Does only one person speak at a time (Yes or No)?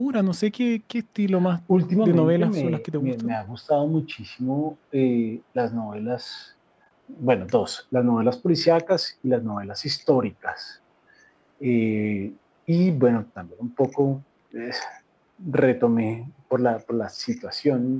No